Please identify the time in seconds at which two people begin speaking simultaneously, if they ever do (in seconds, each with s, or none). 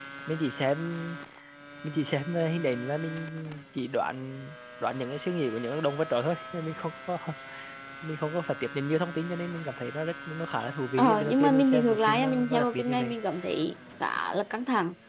11.0 s